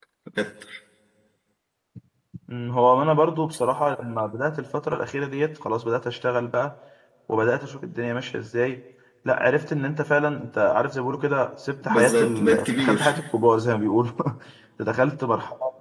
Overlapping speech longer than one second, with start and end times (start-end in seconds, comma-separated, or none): 11.8-13.2